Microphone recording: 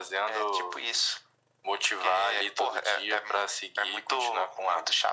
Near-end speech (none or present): none